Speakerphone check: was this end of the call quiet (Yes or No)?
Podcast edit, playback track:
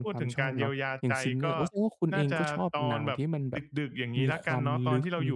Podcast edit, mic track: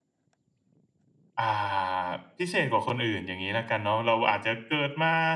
No